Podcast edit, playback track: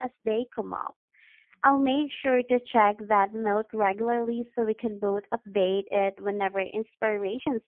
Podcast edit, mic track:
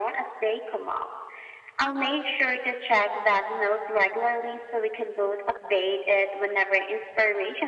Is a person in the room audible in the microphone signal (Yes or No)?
No